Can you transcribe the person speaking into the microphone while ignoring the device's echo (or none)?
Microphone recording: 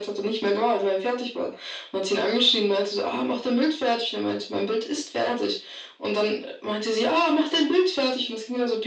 none